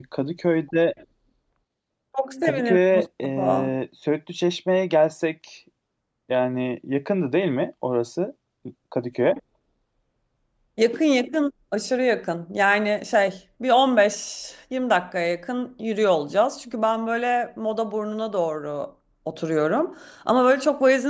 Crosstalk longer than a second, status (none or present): present